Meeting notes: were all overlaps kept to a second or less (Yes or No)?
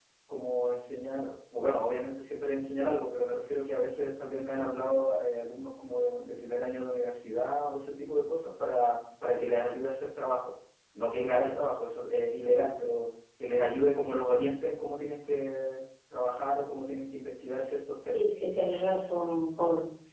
Yes